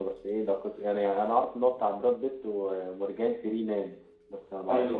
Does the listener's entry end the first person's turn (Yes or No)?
Yes